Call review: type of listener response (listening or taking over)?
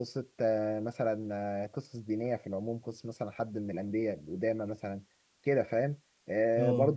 listening